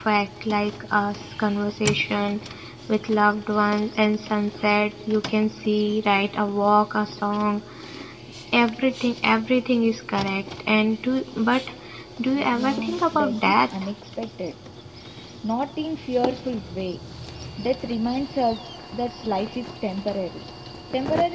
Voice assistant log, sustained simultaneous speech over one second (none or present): present